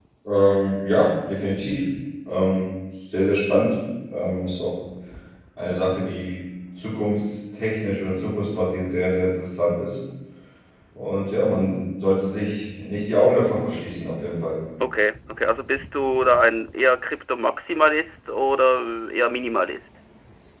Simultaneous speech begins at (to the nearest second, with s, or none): none